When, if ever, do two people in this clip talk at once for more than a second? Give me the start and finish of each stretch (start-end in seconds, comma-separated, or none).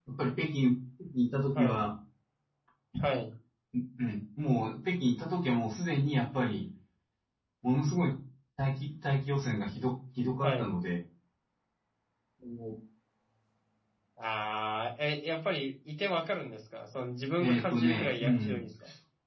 17.4-18.6